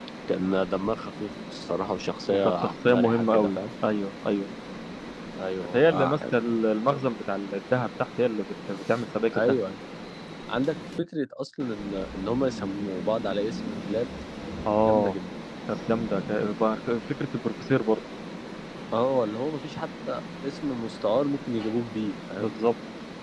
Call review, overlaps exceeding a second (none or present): present